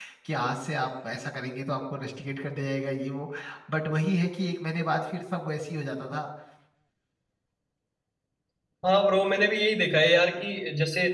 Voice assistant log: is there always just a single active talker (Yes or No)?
Yes